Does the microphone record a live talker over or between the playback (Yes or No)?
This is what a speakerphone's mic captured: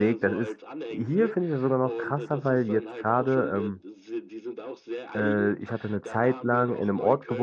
Yes